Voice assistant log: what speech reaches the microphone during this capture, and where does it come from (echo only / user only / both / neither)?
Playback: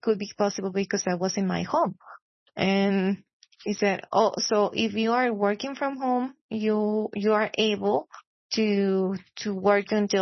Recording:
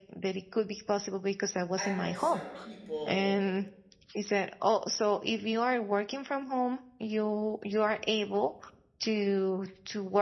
both